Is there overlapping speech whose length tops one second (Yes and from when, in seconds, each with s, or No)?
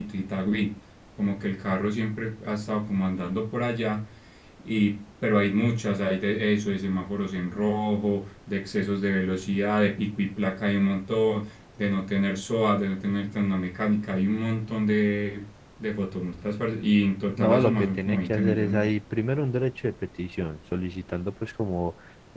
Yes, from 17.4 s